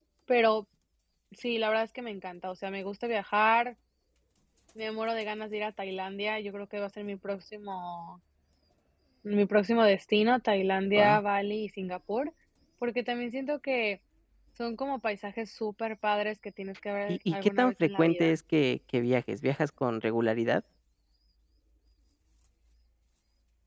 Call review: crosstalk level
present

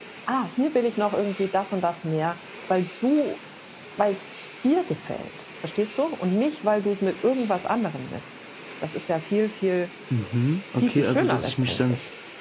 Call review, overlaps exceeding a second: present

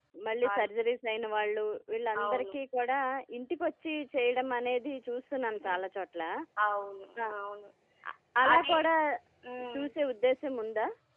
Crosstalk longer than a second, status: none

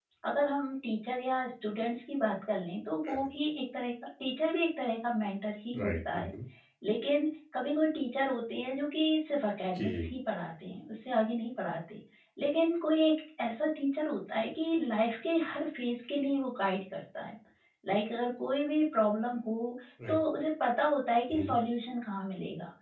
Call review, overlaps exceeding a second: none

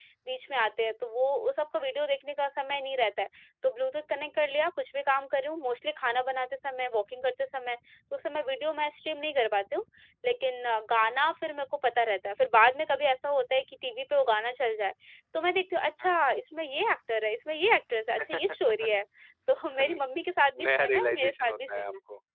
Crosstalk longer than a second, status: present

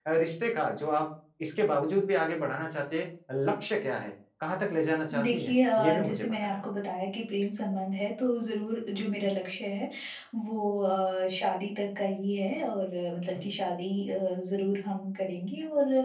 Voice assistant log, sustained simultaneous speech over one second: present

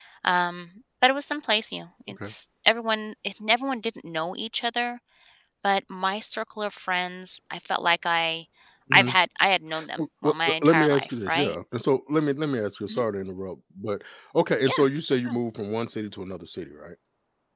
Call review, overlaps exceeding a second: present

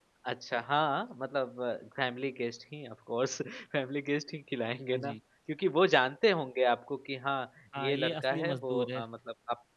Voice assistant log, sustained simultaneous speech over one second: present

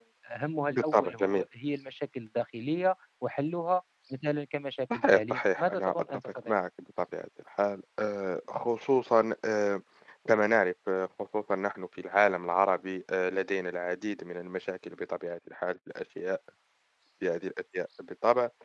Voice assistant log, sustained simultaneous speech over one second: present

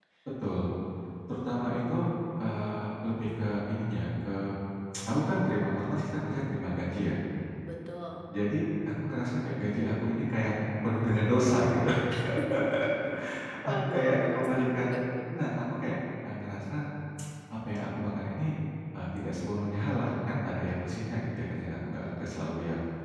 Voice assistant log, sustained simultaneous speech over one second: present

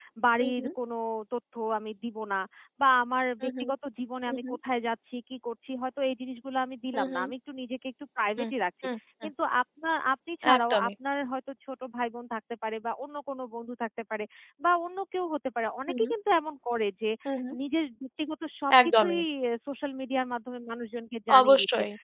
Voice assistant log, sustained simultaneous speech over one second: none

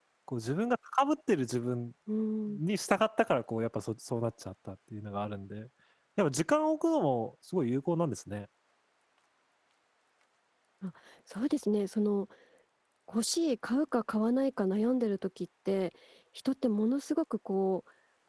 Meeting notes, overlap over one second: none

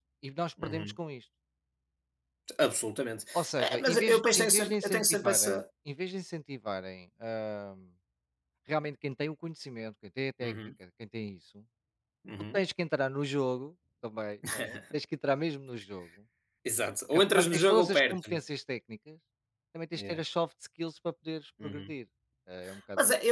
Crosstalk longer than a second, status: present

